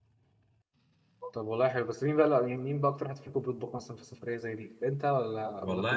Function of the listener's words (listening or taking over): taking over